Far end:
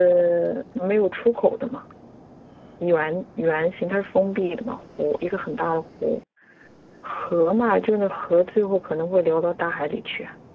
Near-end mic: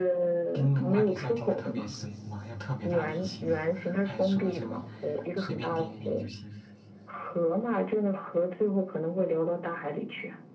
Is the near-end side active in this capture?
Yes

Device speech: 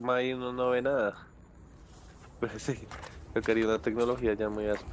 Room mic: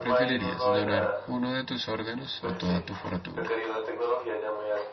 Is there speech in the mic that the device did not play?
Yes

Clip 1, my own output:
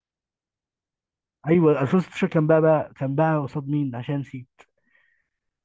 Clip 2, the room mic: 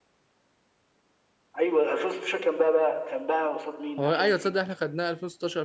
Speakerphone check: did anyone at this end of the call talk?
Yes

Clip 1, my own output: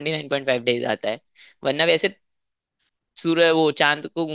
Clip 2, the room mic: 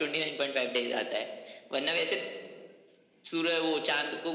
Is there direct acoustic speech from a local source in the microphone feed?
No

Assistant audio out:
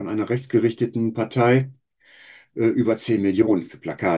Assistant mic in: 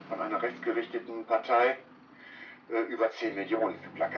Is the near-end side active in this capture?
No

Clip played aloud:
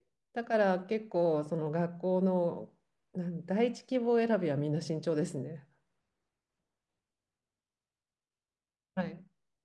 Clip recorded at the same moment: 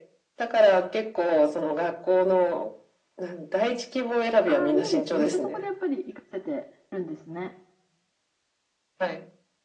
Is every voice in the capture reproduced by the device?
No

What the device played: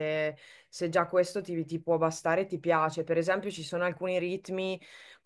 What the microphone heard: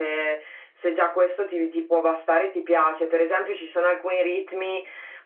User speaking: No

